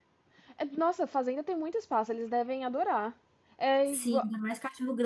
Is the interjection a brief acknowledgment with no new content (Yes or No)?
No